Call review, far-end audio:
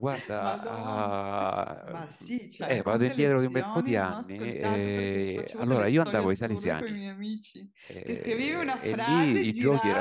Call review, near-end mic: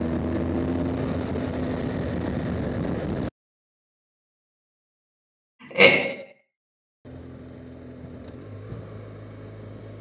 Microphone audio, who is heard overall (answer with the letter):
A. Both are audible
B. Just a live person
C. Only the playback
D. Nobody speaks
B